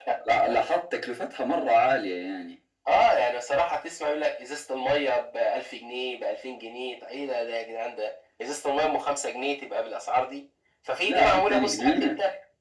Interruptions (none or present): present